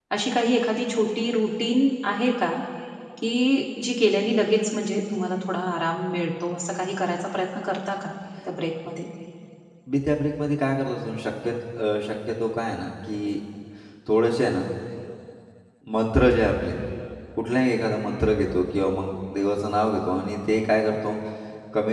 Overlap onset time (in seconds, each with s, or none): none